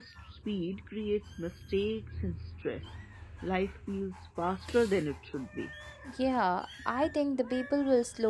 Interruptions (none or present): none